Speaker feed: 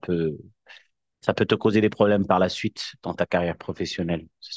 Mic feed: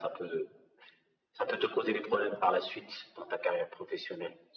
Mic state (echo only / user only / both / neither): echo only